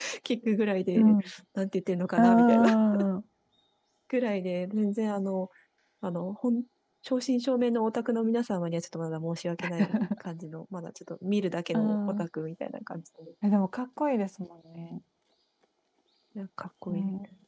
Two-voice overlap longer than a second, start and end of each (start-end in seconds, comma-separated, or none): none